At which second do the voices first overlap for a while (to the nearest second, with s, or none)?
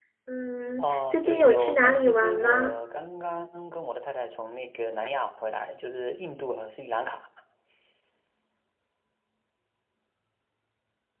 1 s